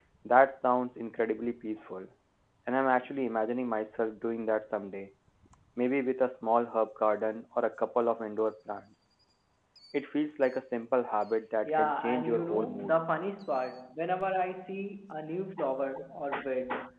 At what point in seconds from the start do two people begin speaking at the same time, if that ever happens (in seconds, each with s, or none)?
11.7 s